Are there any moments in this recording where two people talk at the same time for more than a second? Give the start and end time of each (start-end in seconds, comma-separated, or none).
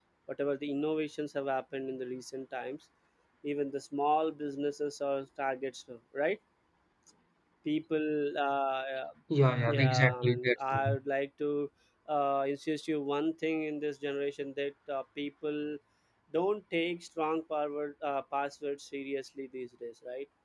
9.7-11.0